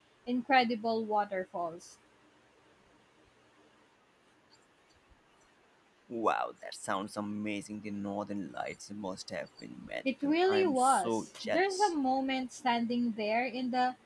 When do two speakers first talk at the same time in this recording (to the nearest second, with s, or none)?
10 s